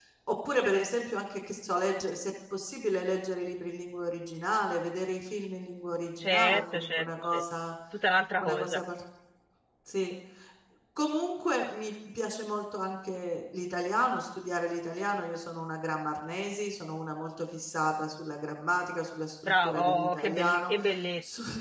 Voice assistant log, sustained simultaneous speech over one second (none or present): present